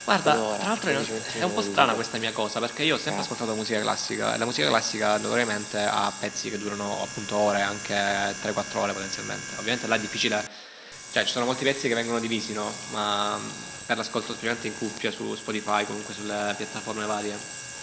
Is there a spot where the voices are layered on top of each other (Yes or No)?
Yes